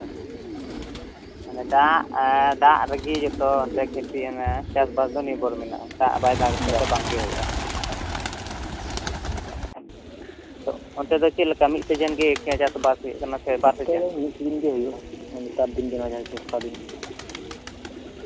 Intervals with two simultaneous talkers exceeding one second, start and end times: none

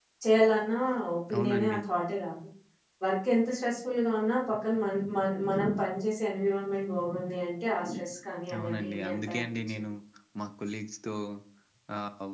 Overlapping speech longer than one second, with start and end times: 8.6-9.8

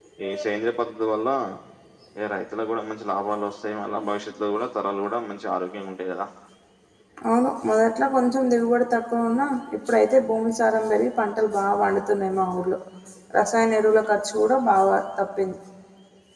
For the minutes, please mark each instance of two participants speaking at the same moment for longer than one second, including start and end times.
none

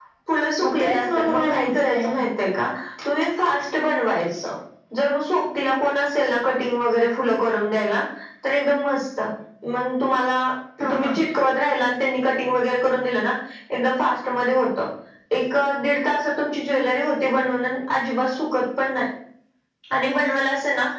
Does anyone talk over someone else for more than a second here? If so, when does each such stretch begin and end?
0.6-2.1

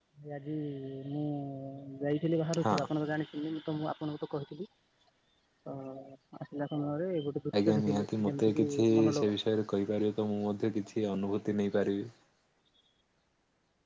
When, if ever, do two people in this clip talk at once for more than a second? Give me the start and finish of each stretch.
7.7-9.3

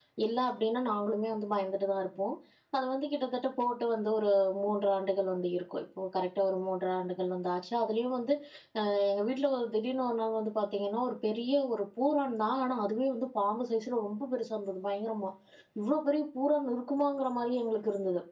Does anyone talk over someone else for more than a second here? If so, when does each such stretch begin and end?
none

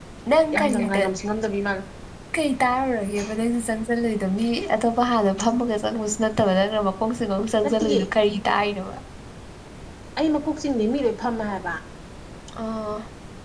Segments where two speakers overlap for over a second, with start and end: none

